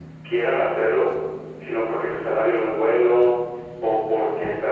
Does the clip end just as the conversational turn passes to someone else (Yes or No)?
No